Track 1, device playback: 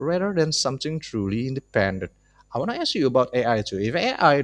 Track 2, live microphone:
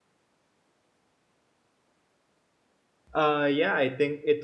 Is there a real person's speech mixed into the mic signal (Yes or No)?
Yes